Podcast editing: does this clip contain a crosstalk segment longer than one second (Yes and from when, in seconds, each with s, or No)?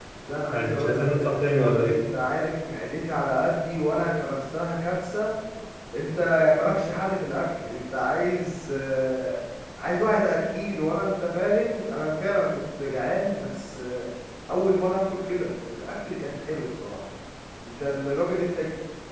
Yes, from 0.5 s